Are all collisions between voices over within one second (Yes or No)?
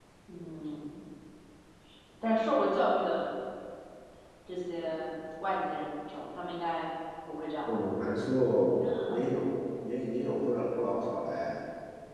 Yes